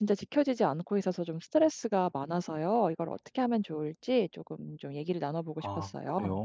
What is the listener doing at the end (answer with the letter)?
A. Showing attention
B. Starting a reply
B